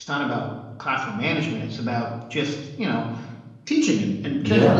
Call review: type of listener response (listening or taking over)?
listening